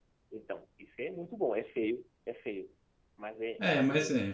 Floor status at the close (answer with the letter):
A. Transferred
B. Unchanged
A